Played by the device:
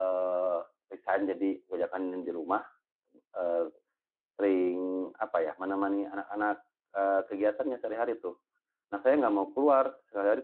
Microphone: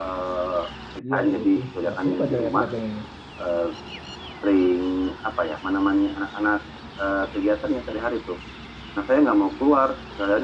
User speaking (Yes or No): Yes